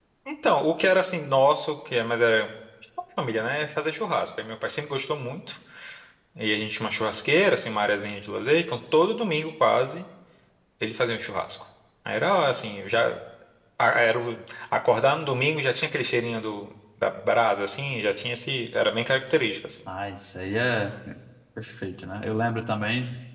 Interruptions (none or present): none